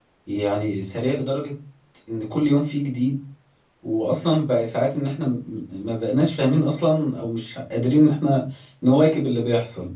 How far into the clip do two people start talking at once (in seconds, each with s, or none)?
none